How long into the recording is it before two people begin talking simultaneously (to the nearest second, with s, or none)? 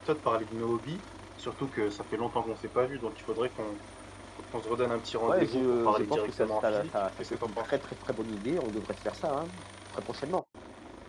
5 s